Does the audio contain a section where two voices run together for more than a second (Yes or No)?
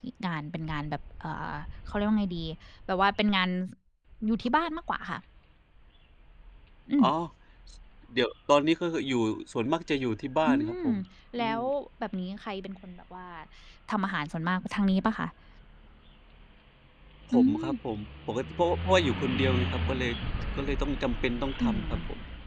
No